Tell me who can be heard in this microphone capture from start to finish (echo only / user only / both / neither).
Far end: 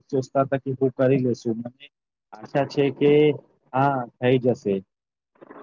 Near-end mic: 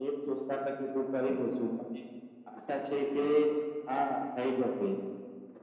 echo only